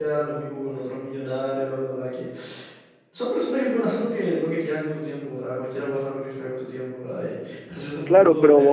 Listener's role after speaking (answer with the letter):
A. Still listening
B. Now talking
B